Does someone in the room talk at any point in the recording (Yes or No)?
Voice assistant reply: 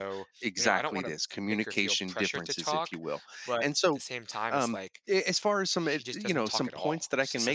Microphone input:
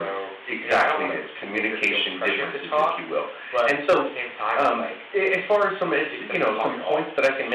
No